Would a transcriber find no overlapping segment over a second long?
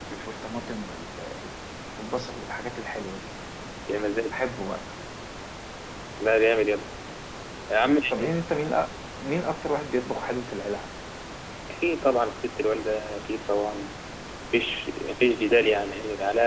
Yes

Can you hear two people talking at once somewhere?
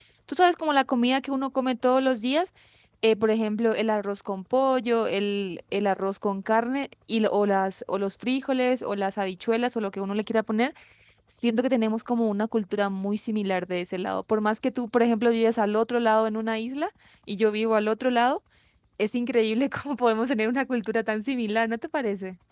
No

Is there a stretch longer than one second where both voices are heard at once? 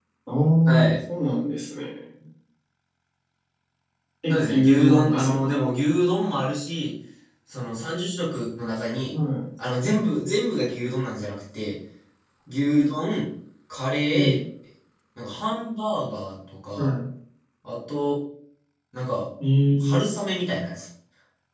Yes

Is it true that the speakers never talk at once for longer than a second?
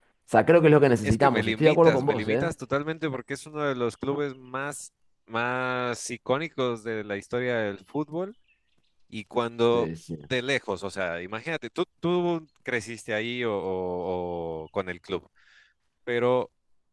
No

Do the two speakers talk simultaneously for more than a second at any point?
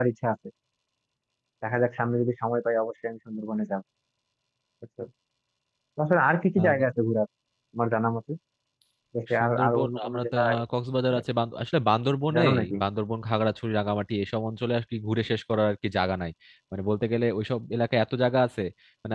Yes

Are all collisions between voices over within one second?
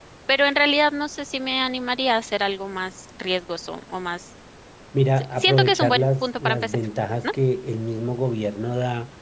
No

